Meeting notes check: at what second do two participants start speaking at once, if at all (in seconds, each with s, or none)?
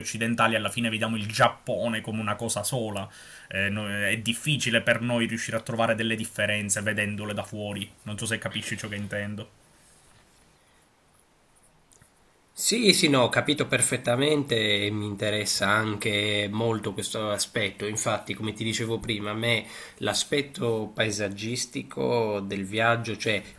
none